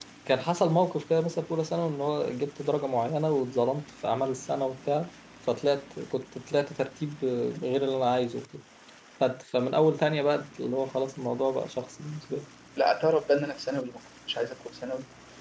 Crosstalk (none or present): none